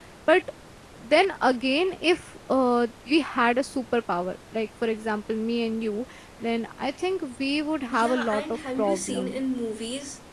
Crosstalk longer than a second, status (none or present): present